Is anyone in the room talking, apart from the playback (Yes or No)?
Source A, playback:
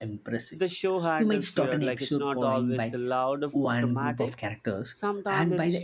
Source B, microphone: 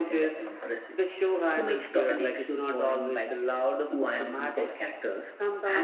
No